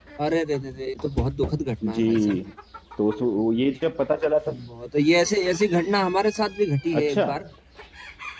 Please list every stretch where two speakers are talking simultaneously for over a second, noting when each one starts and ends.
none

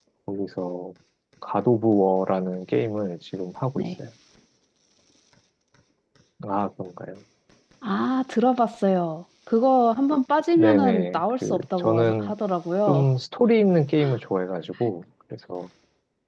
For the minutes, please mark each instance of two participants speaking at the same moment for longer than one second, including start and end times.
10.6-12.3

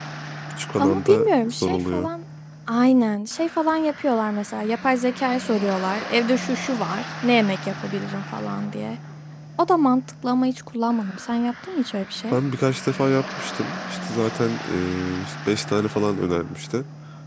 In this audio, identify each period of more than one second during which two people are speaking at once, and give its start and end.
0.8-2.1

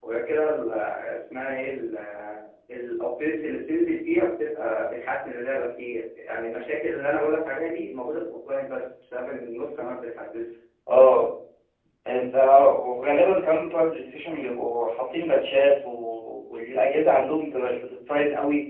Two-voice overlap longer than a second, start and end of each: none

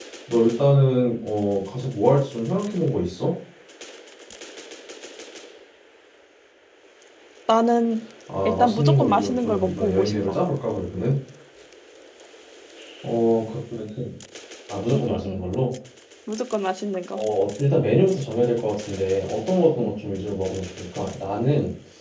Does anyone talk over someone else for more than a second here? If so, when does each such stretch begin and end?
8.4-10.4

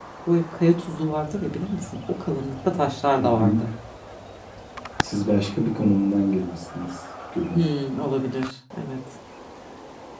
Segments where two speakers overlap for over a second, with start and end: none

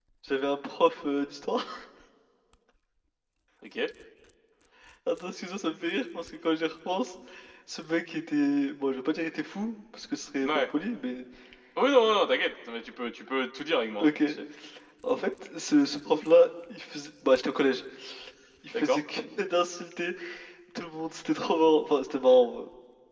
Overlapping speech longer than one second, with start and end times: none

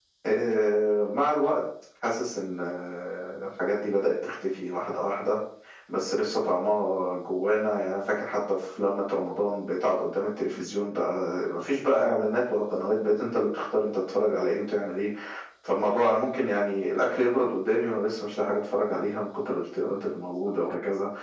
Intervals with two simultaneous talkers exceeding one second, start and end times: none

